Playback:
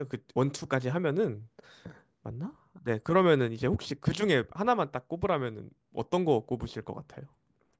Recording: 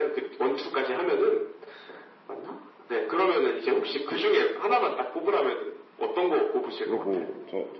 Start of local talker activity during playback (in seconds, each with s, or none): 6.8 s